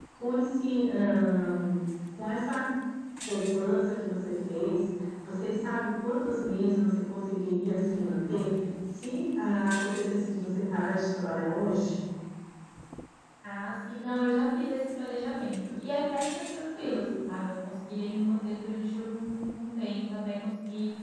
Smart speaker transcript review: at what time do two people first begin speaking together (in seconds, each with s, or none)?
none